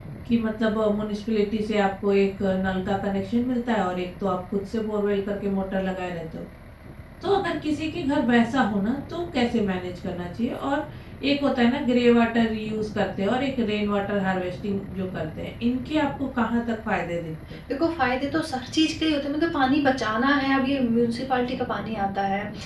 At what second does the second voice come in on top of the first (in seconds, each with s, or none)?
none